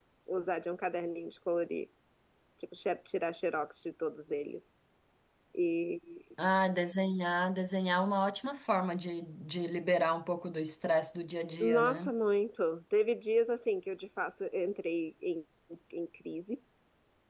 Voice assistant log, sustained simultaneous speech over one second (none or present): none